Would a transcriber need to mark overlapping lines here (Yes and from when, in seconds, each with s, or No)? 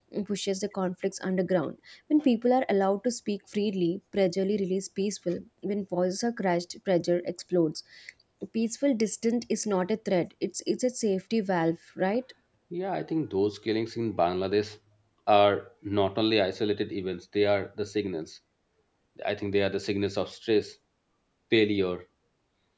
No